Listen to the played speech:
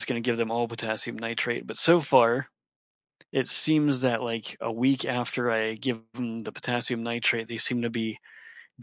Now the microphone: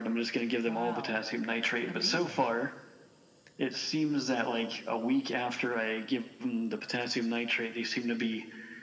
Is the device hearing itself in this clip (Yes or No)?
Yes